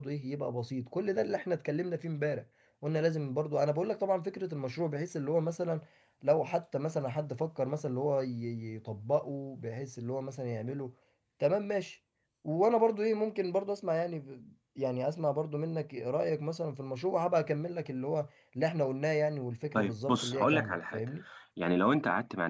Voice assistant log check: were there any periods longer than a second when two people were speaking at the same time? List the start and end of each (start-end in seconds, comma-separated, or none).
19.7-21.0